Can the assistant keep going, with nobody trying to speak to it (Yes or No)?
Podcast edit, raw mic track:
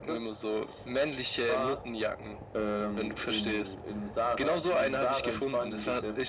Yes